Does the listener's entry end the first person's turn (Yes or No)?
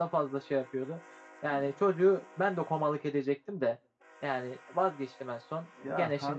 No